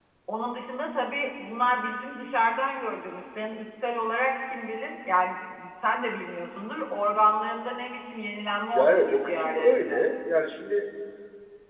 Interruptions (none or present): present